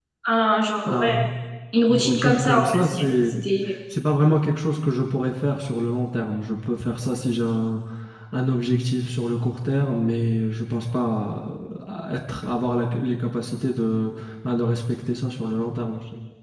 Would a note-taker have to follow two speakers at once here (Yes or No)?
Yes